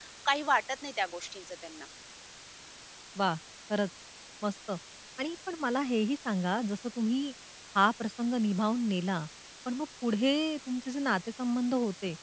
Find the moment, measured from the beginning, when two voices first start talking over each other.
none

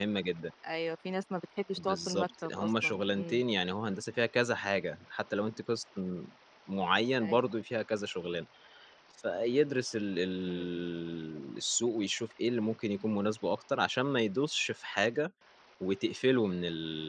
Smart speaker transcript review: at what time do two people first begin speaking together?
1.8 s

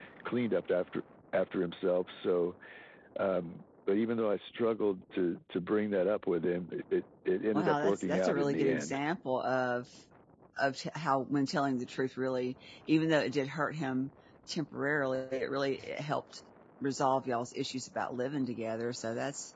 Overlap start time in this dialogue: 7.5 s

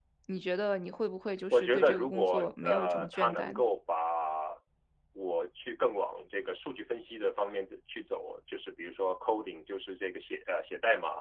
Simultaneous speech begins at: 1.5 s

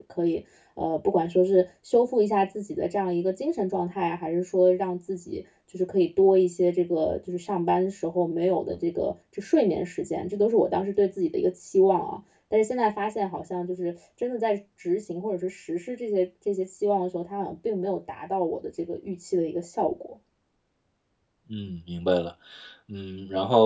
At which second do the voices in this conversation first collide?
none

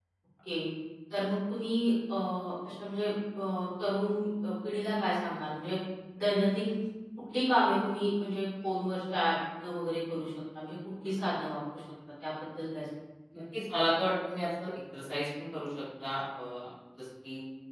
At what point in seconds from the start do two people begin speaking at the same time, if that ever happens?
none

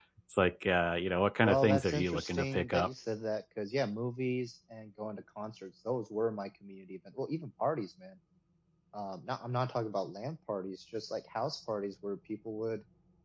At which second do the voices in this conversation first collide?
1.4 s

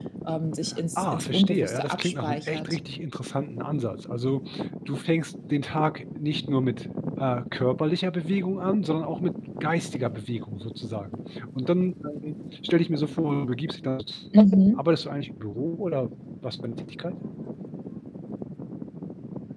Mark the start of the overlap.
0.9 s

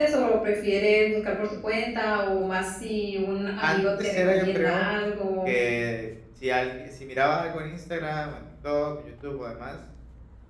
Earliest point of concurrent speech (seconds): 3.6 s

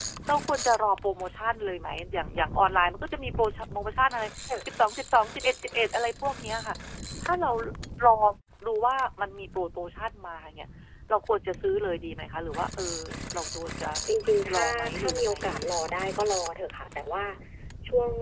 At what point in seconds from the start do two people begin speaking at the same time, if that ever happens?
14.5 s

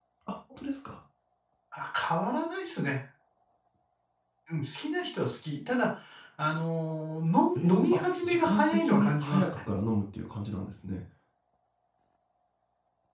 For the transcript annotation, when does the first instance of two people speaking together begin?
7.5 s

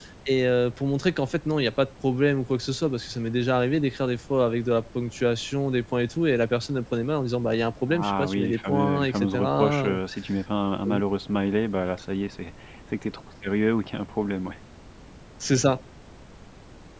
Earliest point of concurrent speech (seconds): 7.9 s

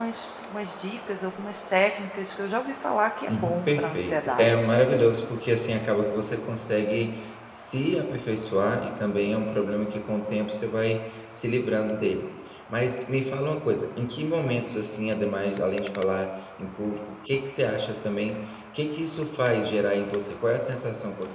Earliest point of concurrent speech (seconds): 3.3 s

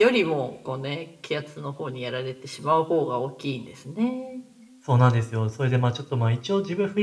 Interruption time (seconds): none

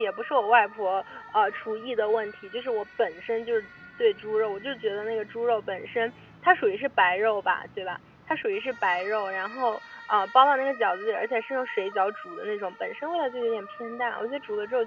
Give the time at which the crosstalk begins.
none

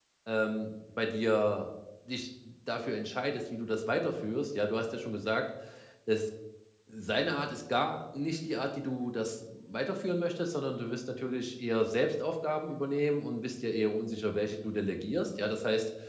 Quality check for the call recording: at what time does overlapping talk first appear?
none

